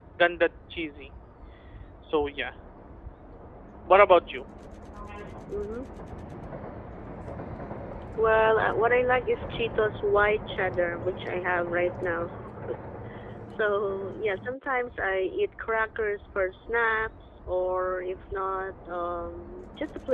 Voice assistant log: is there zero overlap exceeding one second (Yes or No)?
Yes